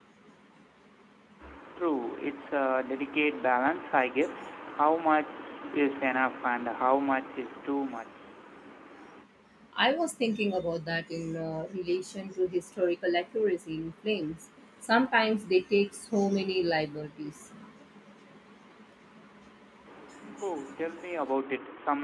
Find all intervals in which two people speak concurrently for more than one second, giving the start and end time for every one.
none

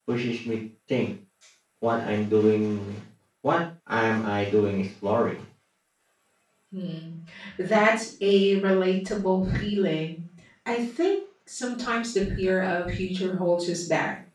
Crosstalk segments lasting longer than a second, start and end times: none

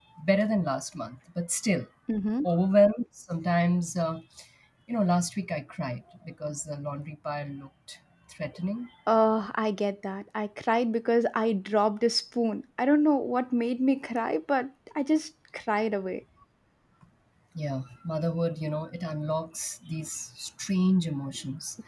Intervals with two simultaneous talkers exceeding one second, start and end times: none

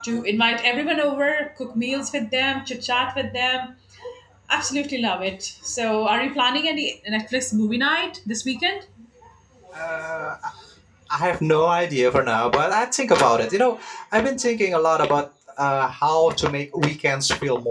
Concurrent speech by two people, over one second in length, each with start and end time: none

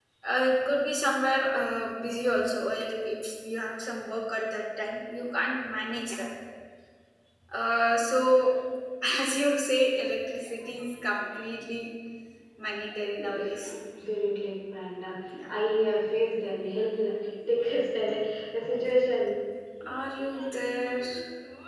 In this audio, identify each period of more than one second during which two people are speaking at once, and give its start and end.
none

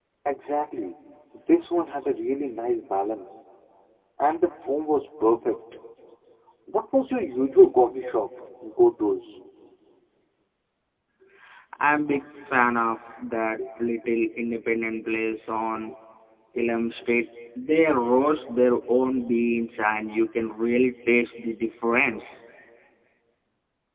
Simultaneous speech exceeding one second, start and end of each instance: none

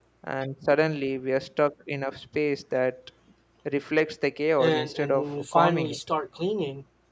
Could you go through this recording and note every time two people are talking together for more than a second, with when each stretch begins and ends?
4.6-6.0

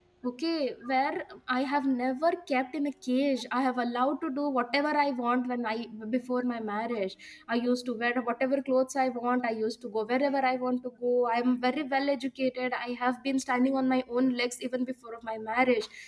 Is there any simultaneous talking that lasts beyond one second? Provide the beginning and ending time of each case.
none

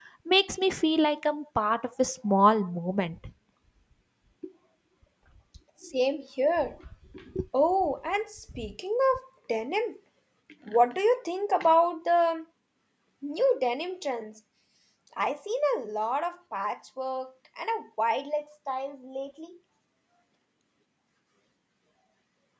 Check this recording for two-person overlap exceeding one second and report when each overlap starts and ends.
none

